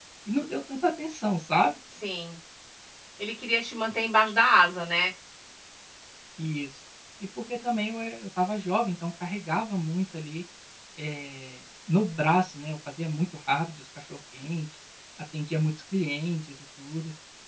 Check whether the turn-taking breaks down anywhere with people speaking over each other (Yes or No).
No